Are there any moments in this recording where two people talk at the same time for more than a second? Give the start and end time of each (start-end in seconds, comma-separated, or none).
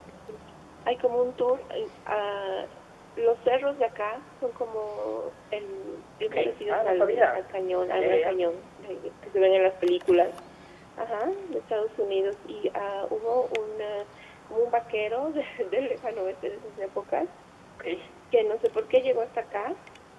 6.2-7.4